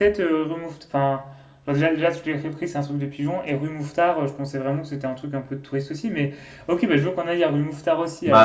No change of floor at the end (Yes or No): No